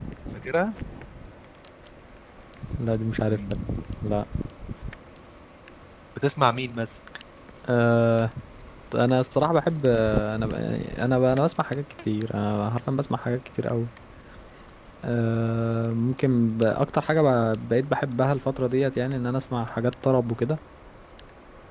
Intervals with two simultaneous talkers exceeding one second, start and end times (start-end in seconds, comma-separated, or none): none